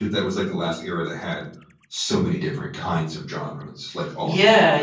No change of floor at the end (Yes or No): No